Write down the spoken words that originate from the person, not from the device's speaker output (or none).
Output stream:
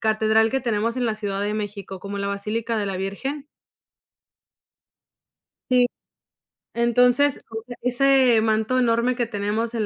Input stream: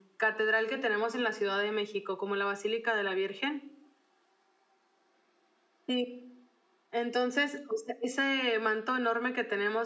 none